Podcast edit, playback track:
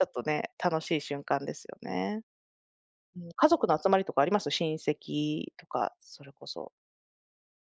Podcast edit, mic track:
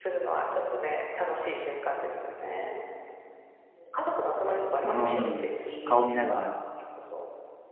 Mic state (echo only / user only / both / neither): both